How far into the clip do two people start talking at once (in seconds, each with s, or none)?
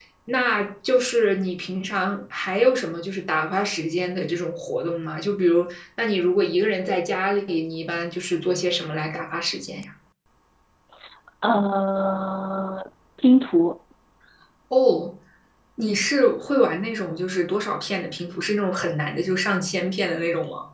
none